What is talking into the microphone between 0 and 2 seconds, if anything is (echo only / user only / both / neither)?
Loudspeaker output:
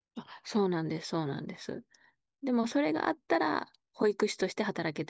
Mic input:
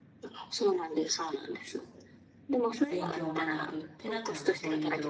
echo only